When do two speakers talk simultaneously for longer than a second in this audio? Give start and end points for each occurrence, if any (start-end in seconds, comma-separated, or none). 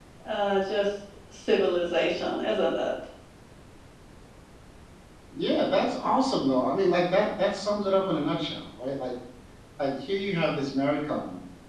none